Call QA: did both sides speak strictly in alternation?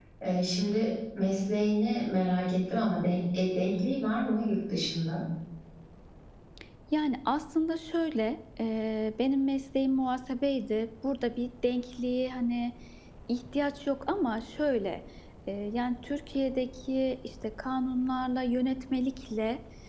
Yes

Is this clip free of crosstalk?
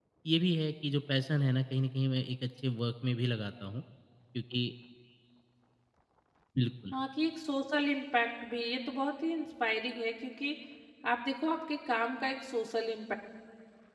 Yes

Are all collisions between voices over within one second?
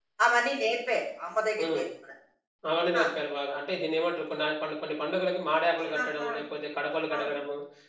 Yes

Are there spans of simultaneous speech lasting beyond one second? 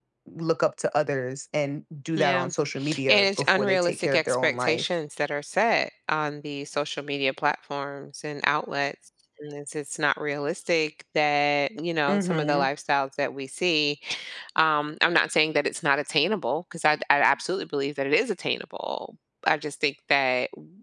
Yes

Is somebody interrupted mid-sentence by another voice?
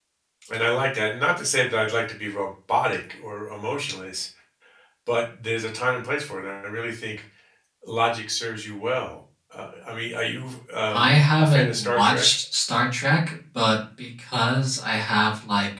Yes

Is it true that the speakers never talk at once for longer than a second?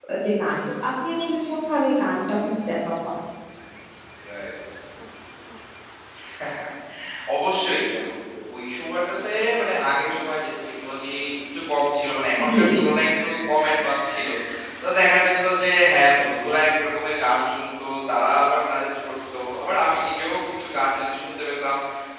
Yes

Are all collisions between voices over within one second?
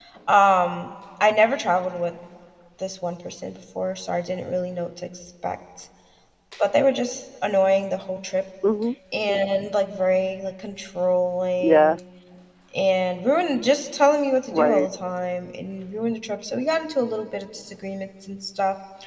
Yes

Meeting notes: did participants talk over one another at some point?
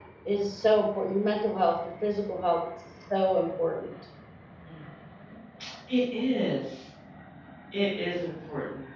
No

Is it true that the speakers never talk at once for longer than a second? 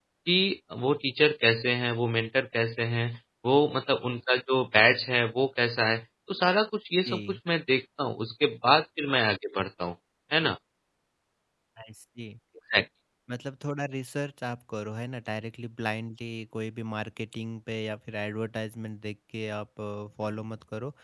Yes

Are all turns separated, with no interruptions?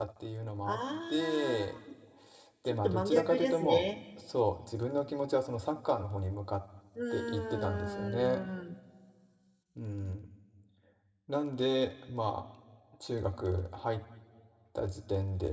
No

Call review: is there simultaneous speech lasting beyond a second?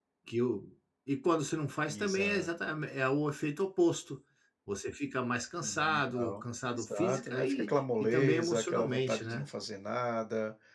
Yes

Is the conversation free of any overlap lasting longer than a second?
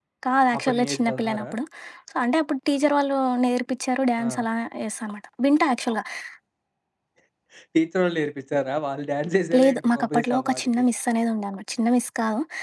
No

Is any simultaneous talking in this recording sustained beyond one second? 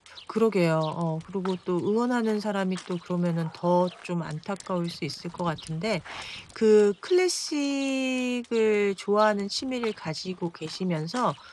No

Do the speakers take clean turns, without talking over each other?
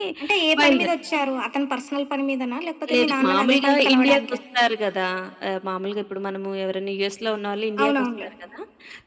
No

